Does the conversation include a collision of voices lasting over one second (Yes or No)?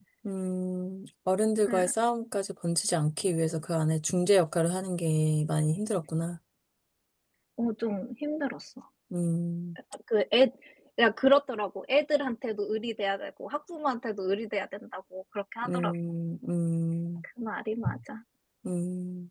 No